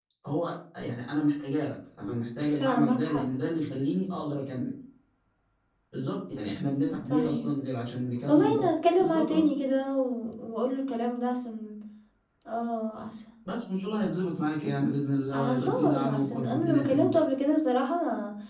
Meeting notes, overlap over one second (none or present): present